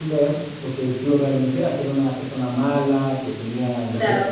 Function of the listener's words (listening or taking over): taking over